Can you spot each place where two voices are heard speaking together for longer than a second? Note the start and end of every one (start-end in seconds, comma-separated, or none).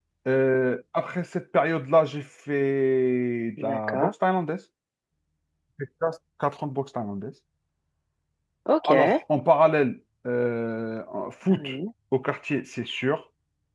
none